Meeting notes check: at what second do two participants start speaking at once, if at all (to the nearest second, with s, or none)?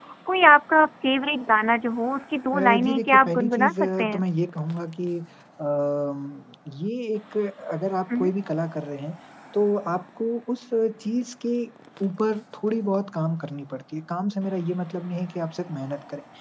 3 s